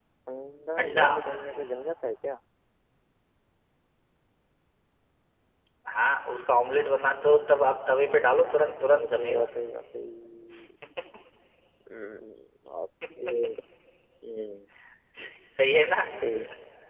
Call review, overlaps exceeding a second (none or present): present